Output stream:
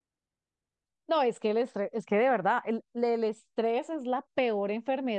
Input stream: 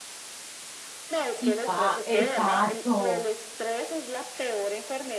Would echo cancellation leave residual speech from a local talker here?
Yes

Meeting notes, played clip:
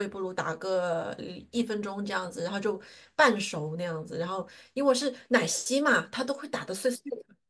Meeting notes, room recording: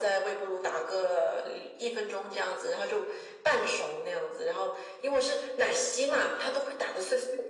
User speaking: No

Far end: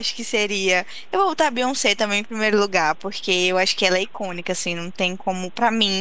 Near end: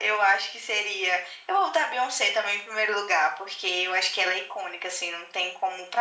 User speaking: No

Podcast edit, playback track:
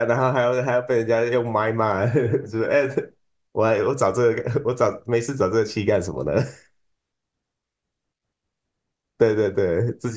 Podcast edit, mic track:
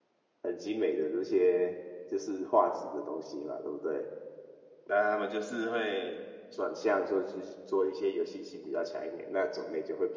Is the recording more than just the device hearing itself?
Yes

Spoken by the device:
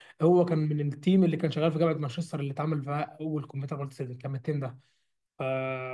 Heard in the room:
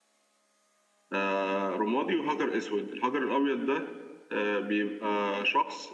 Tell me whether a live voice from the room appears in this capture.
Yes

